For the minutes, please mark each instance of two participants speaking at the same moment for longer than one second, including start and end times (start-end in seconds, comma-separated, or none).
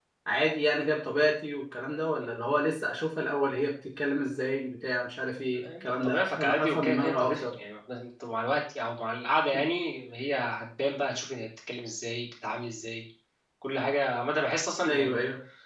5.5-7.5